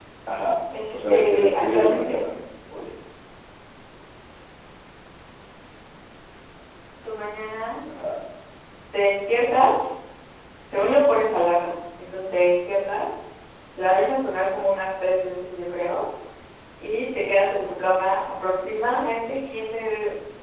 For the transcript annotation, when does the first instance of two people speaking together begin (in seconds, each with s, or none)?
0.9 s